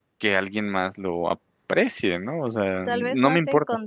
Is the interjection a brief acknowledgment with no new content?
No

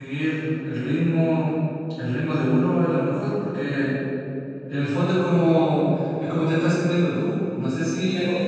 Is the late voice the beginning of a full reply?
Yes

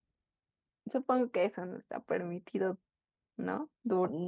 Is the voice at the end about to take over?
Yes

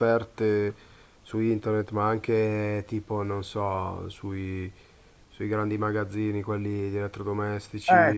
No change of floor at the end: No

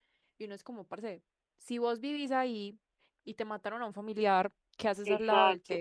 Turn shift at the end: Yes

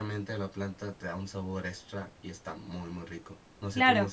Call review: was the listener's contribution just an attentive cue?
No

